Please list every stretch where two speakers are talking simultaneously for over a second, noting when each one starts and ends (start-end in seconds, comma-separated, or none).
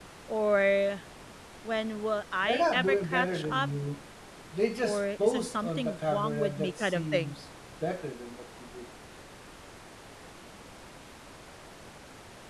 2.4-3.7, 4.8-7.3